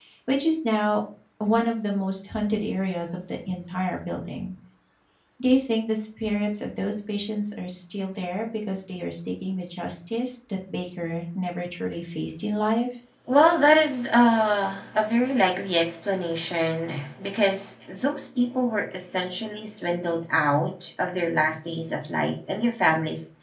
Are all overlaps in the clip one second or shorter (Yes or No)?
Yes